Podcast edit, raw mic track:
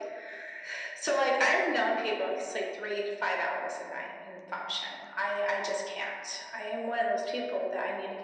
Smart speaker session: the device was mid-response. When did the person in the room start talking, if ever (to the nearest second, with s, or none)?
none